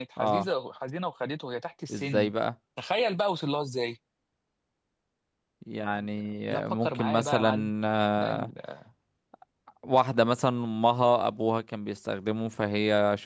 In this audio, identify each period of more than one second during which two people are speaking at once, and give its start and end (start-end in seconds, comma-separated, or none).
6.5-7.7